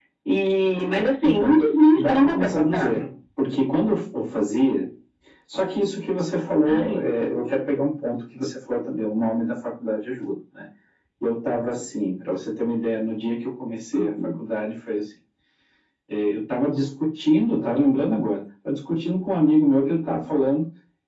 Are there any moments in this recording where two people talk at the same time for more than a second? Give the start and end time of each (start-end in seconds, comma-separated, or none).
1.2-2.9